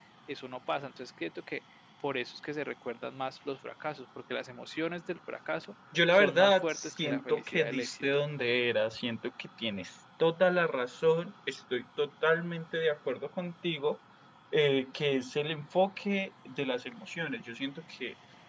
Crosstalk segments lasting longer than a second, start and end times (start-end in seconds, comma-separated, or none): 6.1-8.0